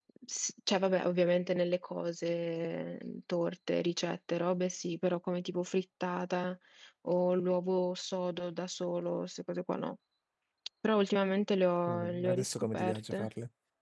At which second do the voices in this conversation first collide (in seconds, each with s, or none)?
11.9 s